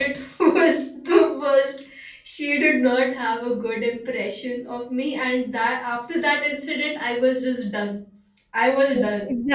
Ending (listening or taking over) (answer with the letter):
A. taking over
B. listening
A